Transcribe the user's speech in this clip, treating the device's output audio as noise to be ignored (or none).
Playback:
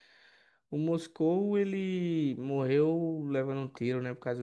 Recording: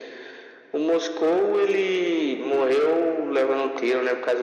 none